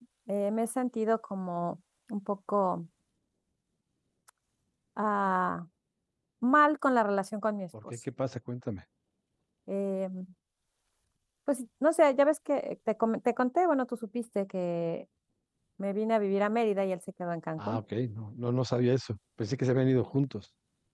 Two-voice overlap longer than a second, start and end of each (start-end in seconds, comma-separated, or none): none